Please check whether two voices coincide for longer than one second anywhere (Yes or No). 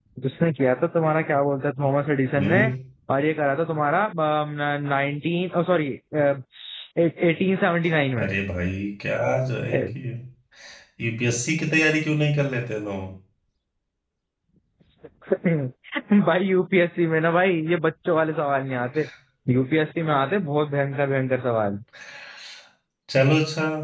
No